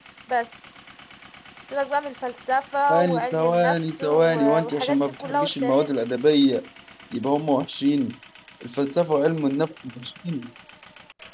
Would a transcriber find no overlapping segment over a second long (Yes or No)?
No